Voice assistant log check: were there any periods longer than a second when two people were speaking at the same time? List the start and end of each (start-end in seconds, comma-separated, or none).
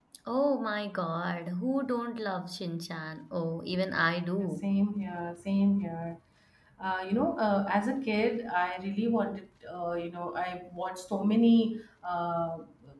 none